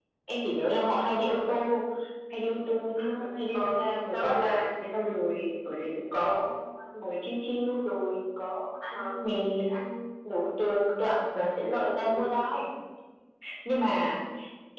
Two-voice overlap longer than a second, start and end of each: 3.5-5.2

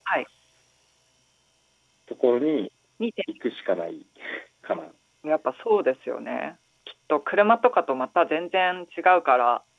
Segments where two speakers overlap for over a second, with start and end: none

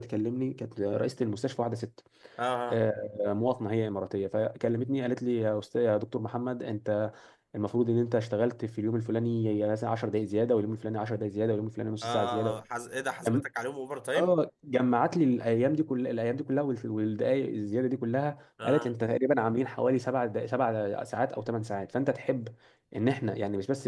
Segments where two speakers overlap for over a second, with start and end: none

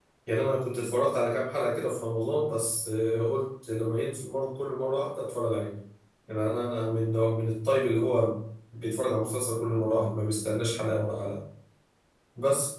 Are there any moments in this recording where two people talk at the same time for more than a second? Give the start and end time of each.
none

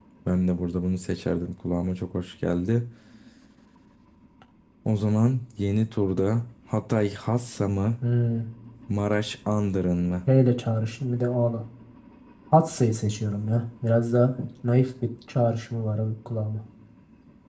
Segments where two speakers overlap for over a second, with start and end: none

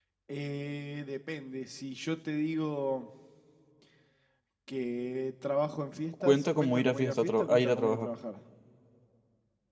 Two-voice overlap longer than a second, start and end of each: 6.2-8.1

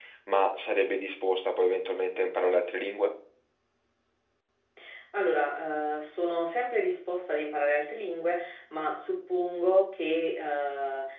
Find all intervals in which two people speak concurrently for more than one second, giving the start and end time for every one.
none

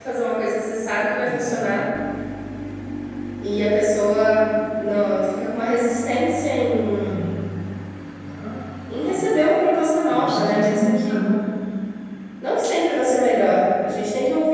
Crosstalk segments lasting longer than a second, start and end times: 10.1-11.4

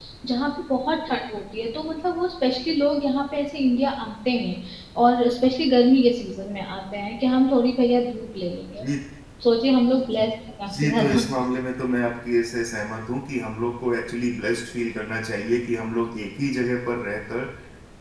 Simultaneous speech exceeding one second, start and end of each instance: none

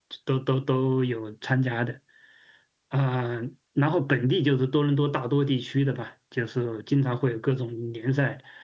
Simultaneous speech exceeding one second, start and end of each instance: none

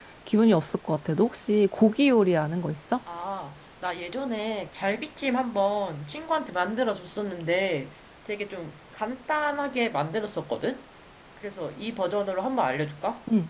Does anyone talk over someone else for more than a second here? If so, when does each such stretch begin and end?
none

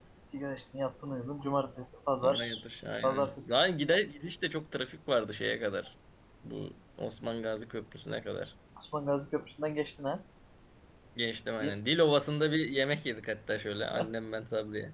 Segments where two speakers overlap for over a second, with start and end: none

